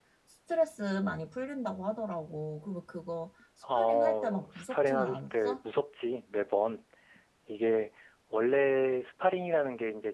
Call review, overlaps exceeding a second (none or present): present